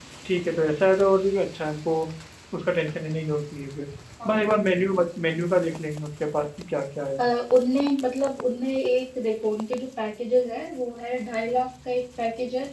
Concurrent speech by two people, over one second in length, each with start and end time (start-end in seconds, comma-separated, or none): none